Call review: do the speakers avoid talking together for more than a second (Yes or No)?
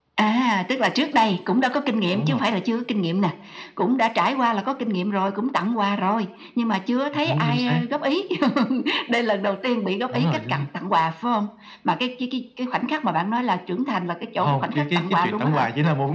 No